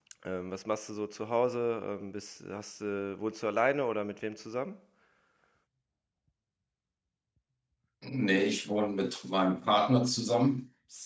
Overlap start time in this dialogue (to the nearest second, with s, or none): none